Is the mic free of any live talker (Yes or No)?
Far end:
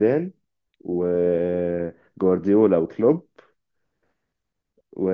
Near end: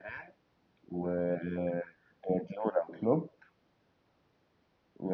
Yes